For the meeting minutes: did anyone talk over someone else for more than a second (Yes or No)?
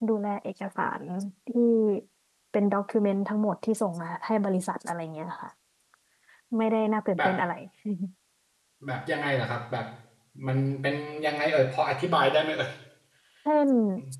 No